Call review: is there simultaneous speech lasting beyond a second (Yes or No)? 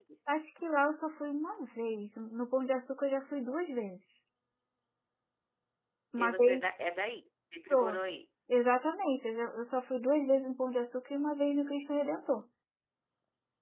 No